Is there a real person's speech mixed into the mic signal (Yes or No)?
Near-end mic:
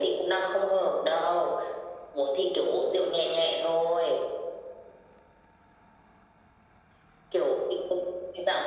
No